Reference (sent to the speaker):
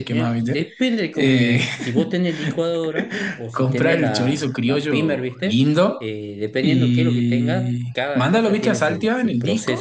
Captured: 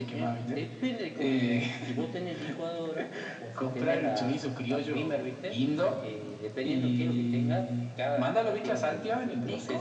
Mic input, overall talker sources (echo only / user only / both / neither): echo only